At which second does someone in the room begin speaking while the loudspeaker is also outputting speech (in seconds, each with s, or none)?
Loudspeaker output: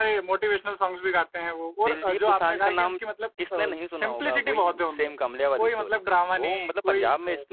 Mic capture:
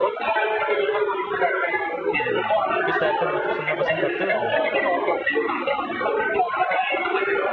2.1 s